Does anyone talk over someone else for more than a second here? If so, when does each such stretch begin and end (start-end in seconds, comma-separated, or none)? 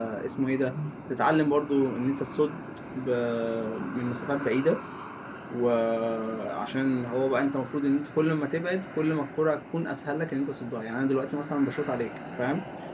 none